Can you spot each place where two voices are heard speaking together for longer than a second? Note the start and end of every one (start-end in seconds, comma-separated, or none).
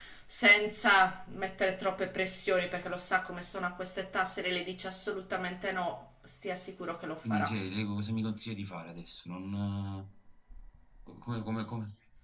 none